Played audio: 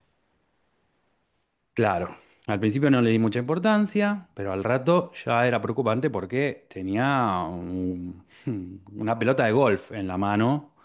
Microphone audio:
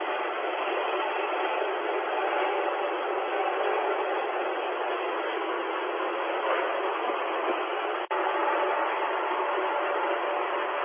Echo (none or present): none